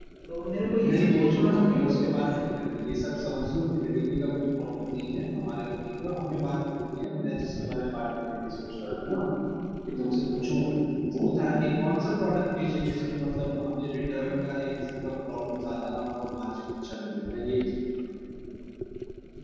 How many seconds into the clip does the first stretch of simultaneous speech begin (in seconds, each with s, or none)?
0.8 s